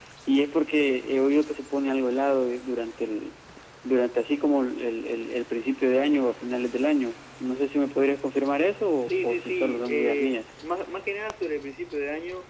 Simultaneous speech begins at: 9.0 s

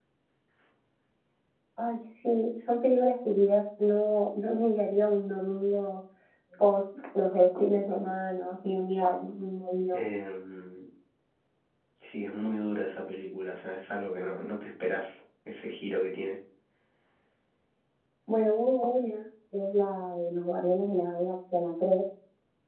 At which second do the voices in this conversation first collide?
none

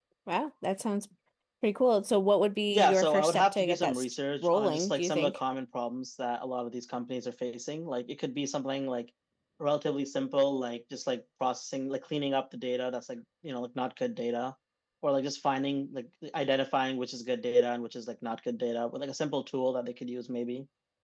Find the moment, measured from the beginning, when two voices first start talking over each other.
2.7 s

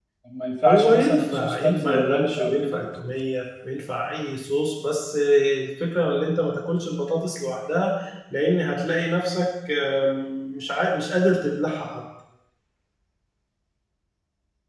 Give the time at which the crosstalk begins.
0.7 s

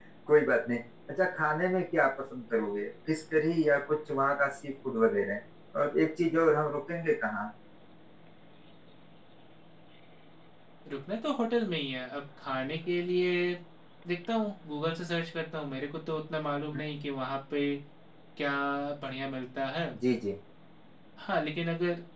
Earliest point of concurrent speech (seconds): none

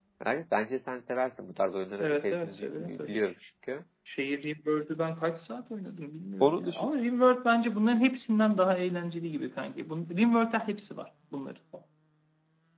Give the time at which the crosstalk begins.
2.0 s

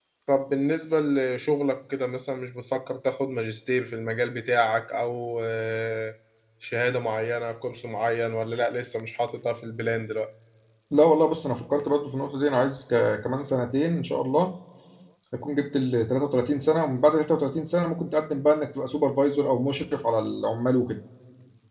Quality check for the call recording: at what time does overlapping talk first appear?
none

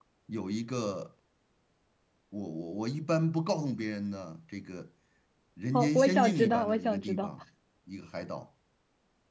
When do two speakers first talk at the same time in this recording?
5.7 s

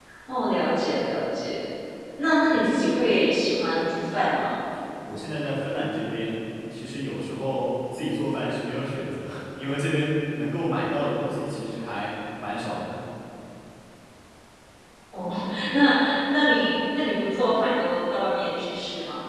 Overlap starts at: none

